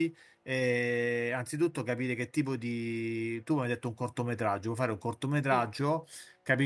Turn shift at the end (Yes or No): No